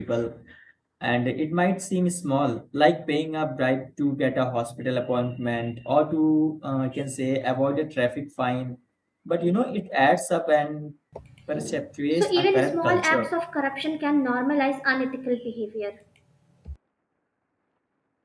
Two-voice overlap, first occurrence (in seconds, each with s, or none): 12.1 s